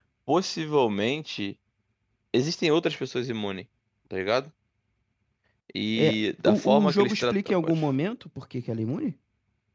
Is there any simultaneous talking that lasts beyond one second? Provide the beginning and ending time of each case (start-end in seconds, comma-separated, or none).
6.5-7.8